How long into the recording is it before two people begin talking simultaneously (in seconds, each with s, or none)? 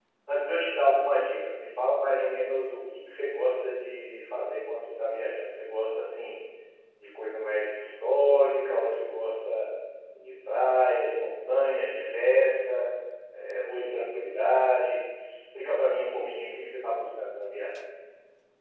none